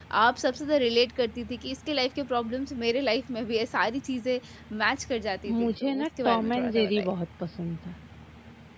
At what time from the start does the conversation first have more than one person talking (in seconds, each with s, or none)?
5.5 s